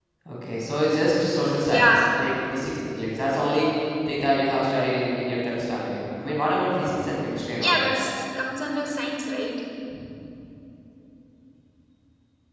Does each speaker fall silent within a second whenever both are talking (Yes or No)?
Yes